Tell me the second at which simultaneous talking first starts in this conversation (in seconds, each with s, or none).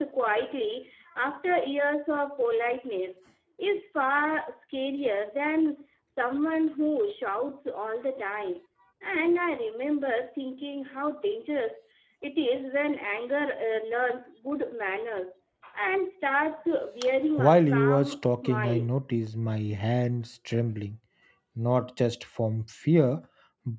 17.4 s